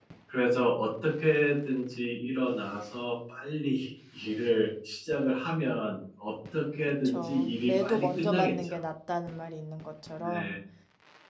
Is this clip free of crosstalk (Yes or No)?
No